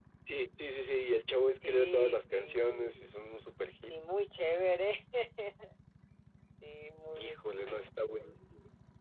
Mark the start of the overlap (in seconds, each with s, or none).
1.7 s